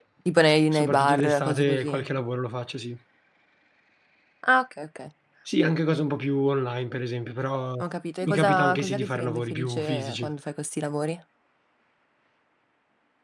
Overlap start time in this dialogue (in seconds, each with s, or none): 0.7 s